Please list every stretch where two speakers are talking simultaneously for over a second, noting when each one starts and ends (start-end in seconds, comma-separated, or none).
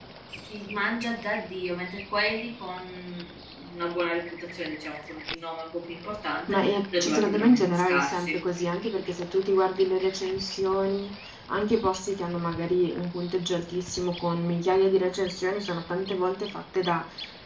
6.5-8.4